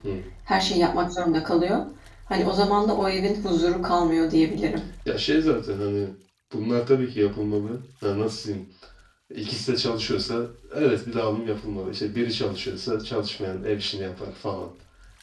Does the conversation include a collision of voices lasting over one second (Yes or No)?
No